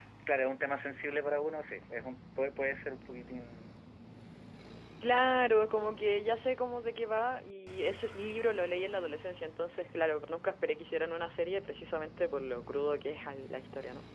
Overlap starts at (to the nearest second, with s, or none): none